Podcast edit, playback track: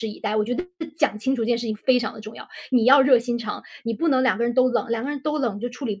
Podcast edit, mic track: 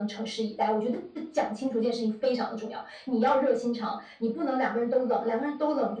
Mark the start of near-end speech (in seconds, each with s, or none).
none